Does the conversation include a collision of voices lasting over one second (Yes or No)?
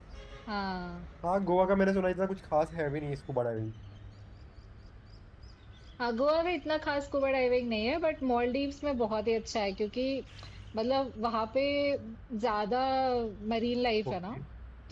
No